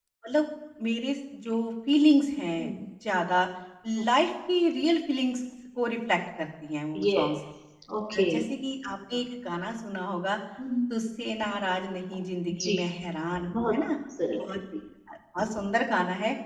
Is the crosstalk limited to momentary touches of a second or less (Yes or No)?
Yes